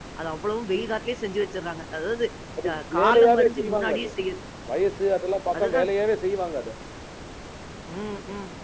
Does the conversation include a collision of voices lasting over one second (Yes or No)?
Yes